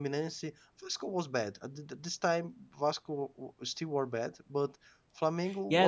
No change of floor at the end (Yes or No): No